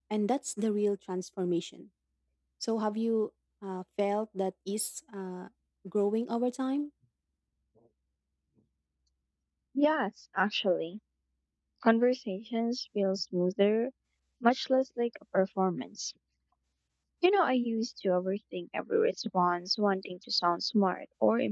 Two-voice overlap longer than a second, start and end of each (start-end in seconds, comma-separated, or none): none